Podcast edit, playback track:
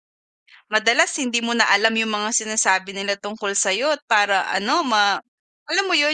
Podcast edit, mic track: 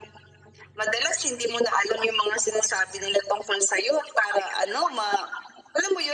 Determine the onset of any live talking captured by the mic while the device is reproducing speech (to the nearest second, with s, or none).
none